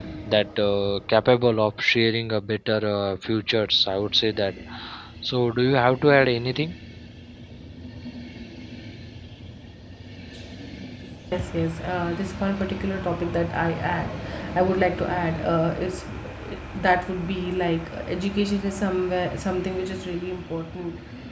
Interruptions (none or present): none